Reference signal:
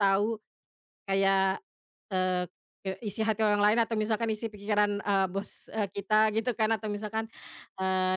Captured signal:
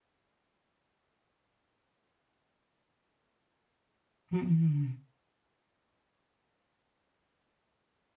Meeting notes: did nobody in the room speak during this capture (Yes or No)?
No